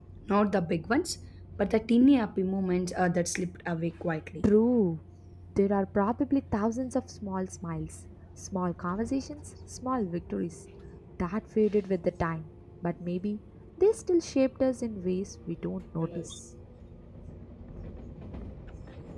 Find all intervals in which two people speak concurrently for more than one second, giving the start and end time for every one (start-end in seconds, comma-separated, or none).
none